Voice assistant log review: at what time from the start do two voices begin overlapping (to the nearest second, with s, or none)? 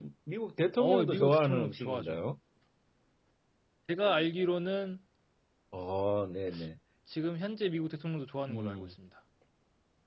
1 s